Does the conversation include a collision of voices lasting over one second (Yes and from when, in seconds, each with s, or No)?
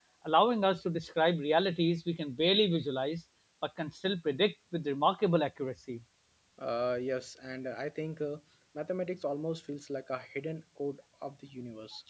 No